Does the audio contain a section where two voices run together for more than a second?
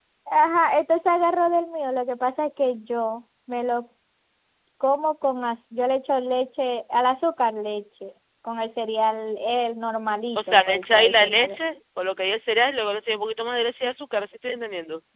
Yes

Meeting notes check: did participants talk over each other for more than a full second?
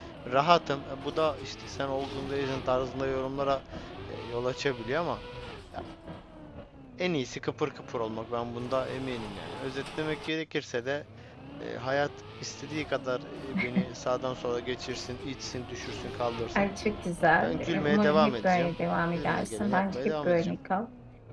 Yes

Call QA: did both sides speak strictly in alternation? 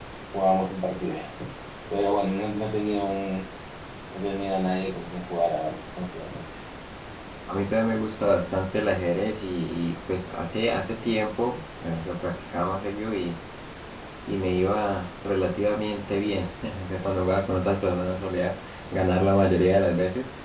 Yes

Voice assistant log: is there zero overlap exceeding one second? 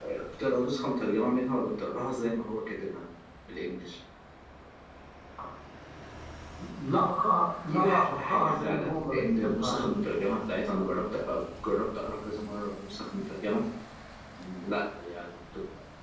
No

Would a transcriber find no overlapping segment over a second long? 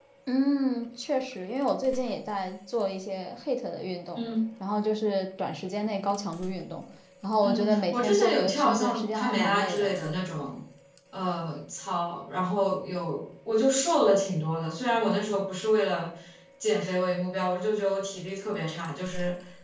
No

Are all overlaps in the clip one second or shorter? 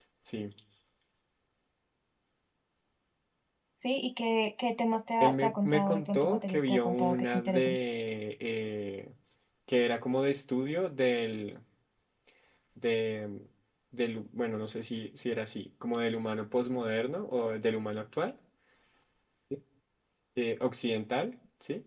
No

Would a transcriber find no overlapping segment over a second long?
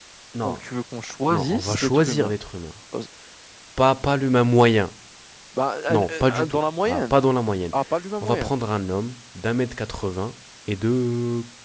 No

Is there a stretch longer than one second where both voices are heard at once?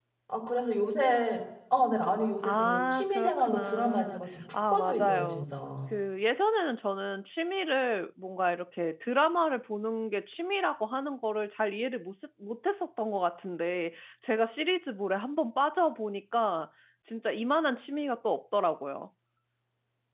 Yes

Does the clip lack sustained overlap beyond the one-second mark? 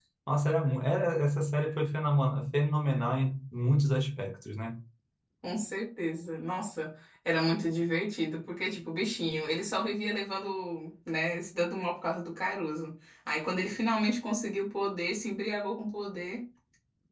Yes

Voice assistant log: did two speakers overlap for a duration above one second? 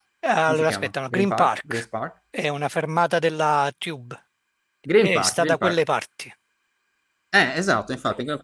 Yes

